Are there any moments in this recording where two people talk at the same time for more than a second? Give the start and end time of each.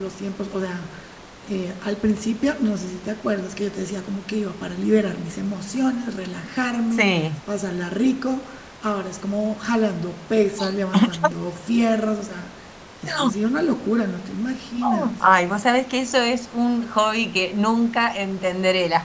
none

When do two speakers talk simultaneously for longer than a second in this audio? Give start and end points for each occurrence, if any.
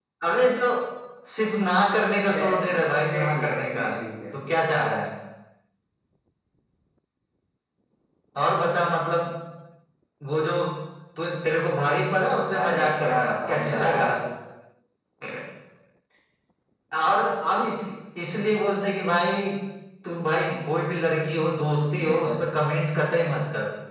2.3-3.9, 12.6-14.1

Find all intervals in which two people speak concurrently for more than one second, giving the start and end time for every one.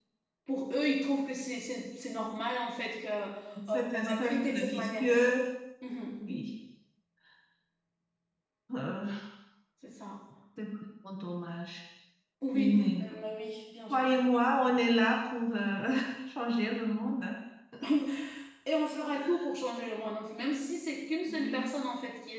3.7-5.1

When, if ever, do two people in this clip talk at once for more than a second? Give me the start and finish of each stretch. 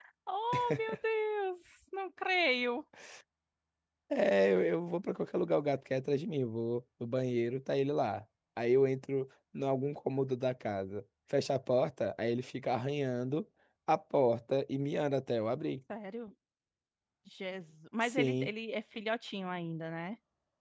none

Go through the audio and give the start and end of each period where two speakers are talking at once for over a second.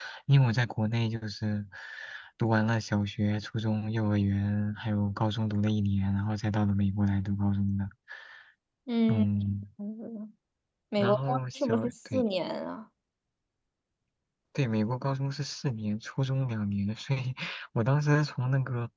11.0-12.2

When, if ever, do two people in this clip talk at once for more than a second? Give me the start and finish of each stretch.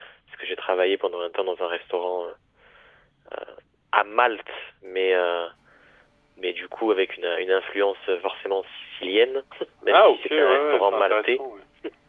9.9-11.4

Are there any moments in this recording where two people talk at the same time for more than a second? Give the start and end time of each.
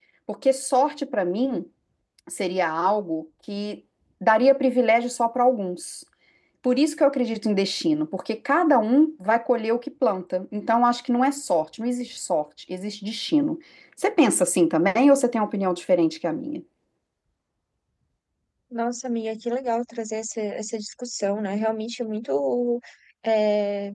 none

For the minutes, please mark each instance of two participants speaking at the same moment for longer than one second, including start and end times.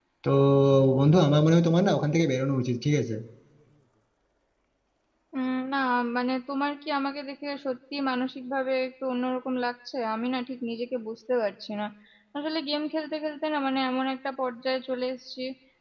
none

